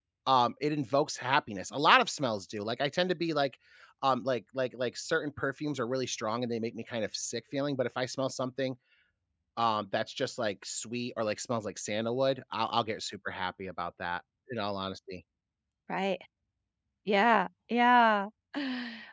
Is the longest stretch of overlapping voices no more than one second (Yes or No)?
Yes